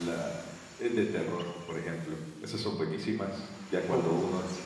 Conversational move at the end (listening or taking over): listening